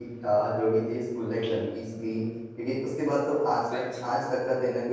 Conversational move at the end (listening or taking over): listening